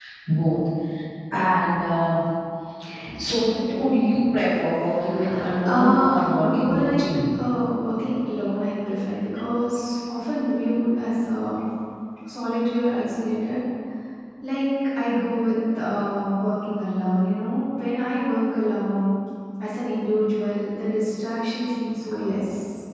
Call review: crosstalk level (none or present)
present